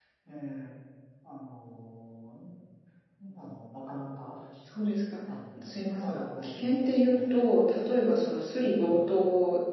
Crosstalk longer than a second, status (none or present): present